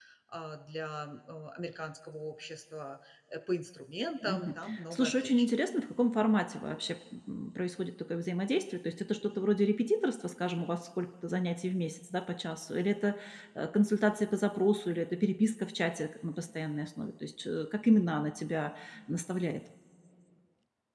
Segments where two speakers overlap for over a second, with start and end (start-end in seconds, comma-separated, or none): 4.2-5.5